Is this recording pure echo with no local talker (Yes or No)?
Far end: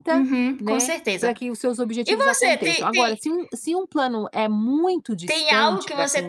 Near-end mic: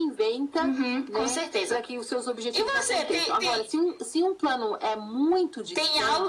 Yes